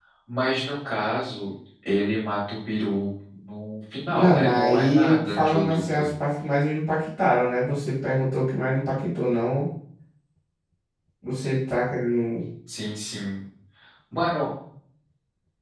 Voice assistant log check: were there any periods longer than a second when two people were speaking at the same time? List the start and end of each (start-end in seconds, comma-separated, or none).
4.1-6.1